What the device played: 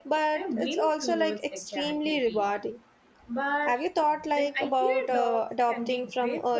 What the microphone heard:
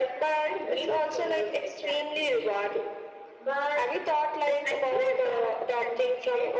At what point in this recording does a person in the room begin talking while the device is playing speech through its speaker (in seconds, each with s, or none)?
none